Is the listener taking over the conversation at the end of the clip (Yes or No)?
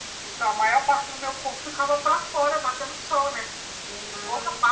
No